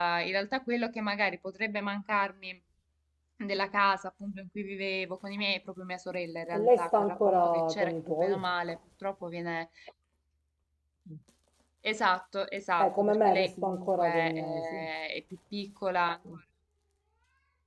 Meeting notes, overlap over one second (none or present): present